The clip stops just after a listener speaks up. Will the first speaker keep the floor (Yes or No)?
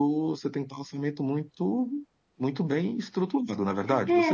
No